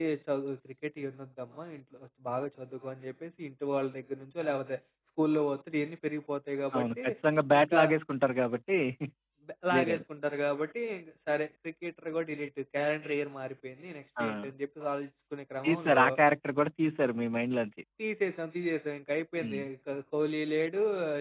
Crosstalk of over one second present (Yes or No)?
No